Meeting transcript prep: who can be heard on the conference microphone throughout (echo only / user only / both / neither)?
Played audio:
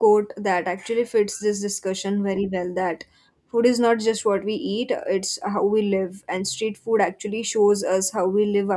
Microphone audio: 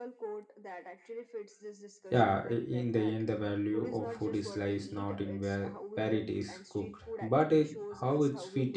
both